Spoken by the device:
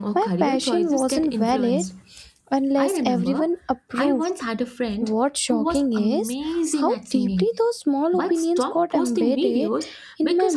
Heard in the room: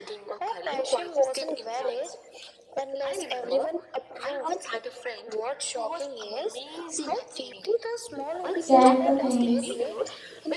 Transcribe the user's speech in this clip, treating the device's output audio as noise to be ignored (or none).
get the things.